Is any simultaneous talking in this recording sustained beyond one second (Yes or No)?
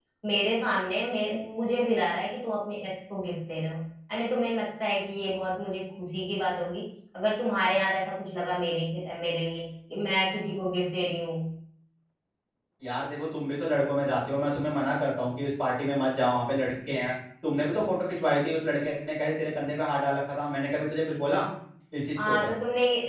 No